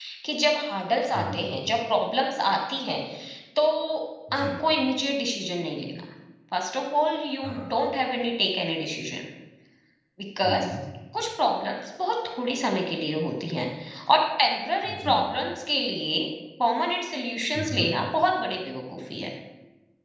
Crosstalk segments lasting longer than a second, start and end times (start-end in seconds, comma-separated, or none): none